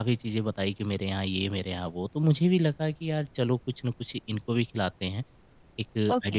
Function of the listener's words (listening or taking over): listening